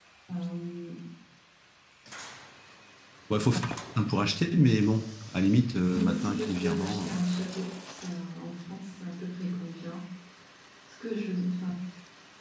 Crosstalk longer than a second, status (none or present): present